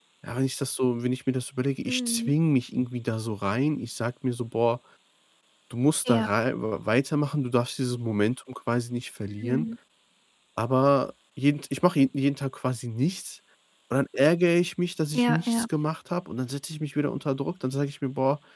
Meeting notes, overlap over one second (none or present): none